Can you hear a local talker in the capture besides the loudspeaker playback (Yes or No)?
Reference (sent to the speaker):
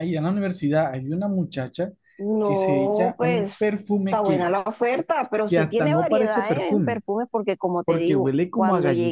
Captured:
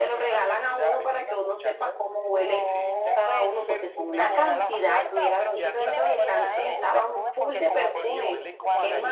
Yes